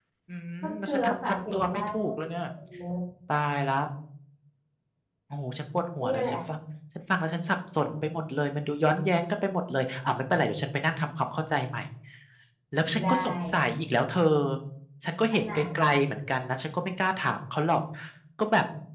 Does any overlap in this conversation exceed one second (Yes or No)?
Yes